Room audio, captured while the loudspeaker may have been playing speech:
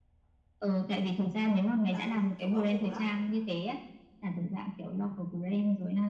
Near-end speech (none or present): present